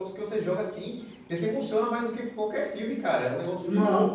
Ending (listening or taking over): taking over